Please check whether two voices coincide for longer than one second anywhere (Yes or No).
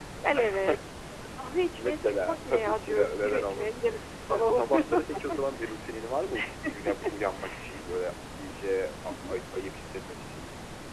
Yes